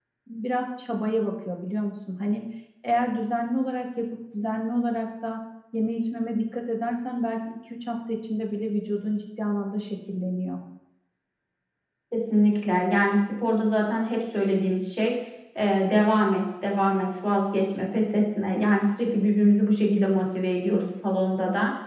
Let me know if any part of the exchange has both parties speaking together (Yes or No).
No